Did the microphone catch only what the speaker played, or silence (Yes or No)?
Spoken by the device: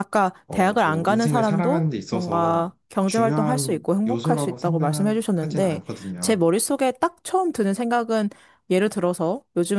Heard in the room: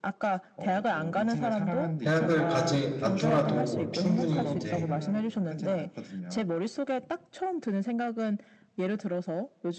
No